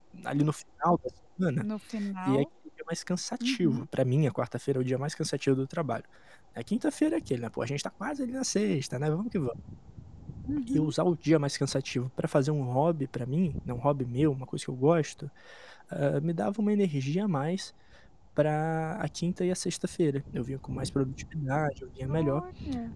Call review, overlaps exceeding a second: none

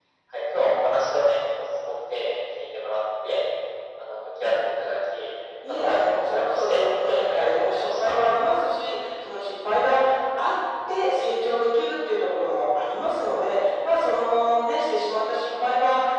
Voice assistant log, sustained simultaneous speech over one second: present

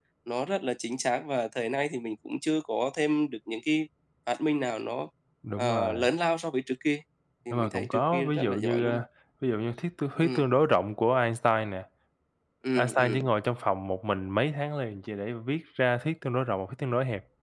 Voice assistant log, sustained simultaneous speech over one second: present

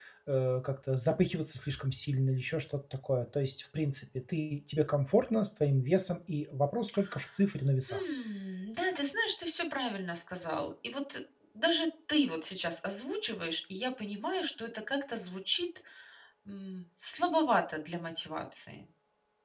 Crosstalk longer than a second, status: none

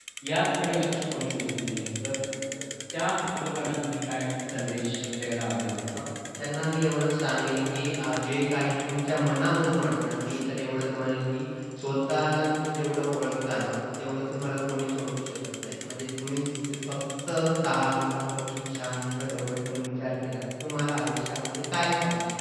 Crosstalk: none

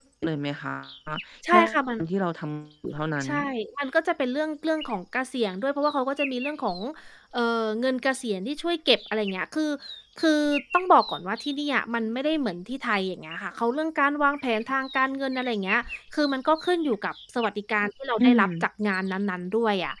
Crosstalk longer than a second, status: none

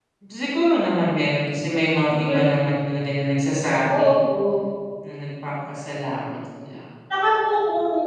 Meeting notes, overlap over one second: none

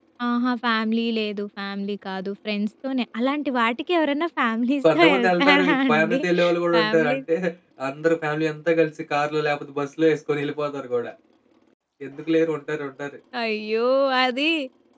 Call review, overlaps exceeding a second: present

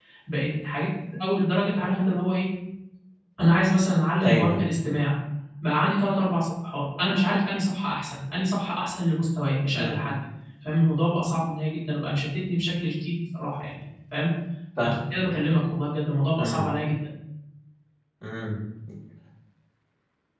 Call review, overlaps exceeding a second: none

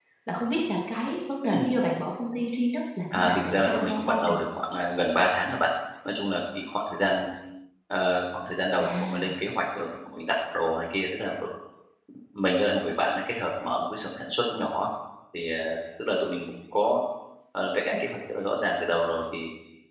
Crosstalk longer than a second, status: present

